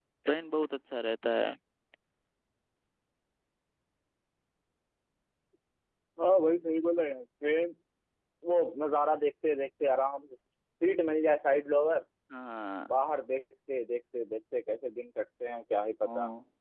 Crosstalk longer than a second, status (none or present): none